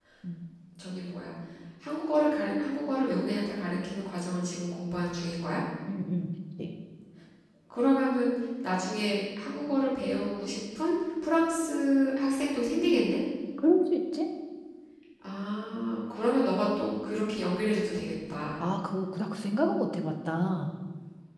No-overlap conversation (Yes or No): Yes